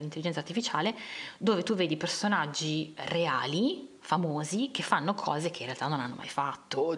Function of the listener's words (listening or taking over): taking over